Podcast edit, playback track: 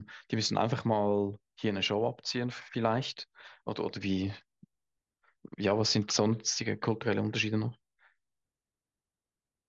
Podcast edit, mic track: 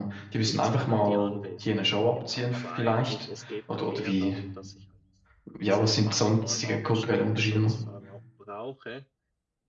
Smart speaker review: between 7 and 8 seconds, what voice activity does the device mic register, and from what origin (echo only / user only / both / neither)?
both